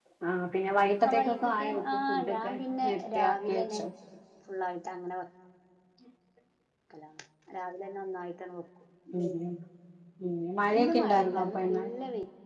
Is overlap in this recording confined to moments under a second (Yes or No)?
No